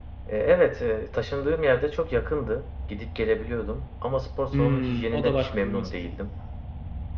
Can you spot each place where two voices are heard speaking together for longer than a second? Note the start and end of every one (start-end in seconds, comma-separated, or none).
4.5-5.9